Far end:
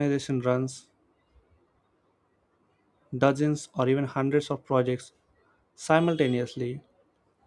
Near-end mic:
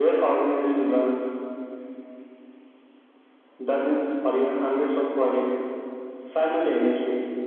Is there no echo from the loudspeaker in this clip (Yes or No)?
No